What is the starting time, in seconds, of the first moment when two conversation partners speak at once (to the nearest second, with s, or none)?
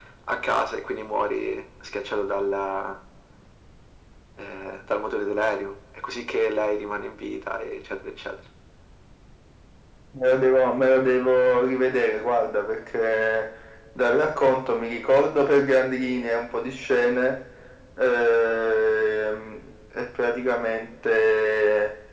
none